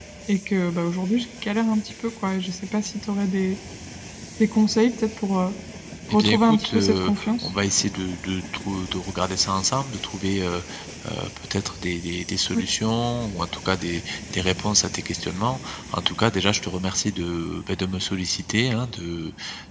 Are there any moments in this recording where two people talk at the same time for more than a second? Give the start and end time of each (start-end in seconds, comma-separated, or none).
6.1-7.5